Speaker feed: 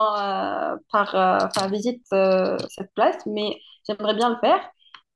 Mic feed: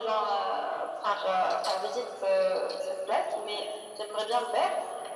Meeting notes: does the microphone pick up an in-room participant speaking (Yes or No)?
No